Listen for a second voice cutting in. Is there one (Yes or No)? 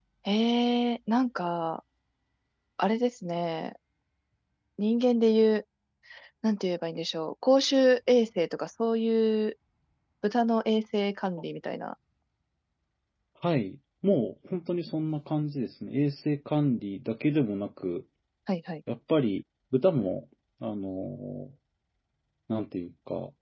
No